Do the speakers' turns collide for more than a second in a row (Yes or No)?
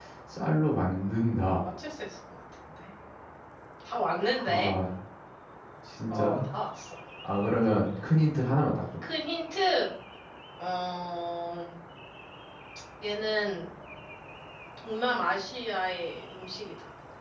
No